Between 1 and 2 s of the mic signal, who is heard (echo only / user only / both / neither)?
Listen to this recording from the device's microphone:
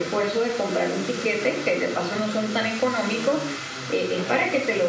both